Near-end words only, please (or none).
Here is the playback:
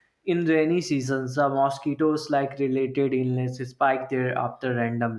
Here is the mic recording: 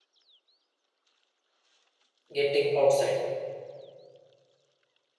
getting outside.